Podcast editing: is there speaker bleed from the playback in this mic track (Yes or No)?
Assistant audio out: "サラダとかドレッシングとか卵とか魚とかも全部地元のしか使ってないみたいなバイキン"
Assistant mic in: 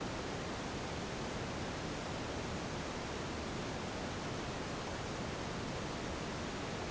No